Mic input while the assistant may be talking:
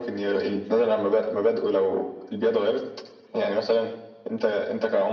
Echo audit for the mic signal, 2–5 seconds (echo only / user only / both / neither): echo only